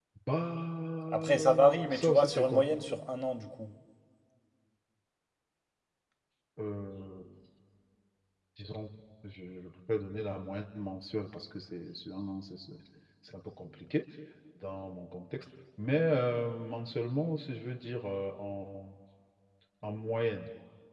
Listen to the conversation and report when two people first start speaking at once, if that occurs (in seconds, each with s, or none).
1.1 s